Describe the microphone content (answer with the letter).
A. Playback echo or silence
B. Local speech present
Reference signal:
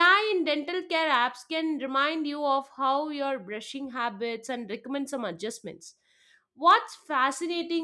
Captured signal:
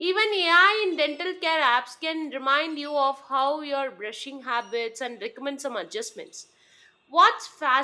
A